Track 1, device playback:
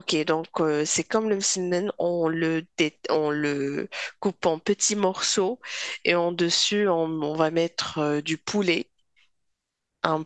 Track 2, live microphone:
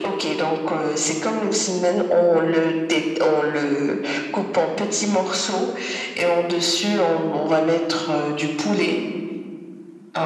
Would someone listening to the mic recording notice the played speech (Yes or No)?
Yes